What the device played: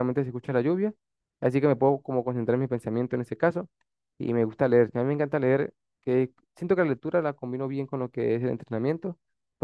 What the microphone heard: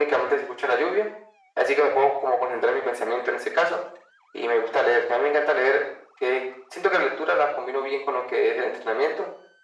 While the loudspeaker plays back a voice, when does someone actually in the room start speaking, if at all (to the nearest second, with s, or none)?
none